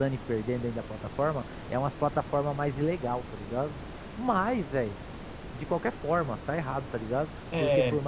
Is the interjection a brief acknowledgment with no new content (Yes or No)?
Yes